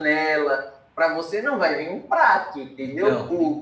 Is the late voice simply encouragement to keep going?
Yes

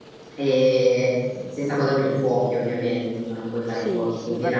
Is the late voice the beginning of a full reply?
Yes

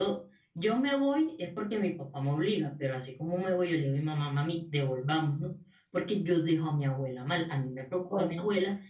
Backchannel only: Yes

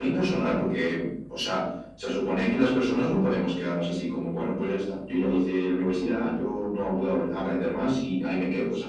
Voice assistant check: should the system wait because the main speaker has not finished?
No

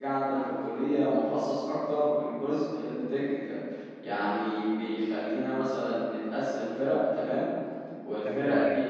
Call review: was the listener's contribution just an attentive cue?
Yes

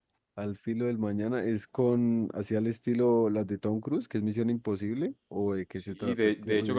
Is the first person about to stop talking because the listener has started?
Yes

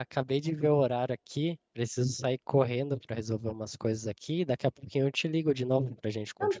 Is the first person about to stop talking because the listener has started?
Yes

